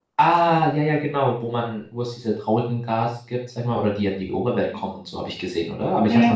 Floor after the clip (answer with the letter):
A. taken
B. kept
A